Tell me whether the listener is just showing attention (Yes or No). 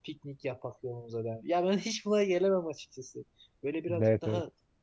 Yes